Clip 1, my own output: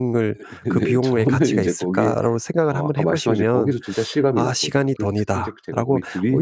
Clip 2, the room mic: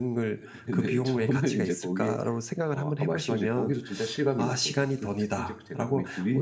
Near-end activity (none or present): none